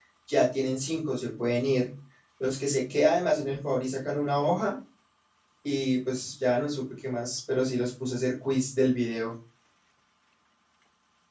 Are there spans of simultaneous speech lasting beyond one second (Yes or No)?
No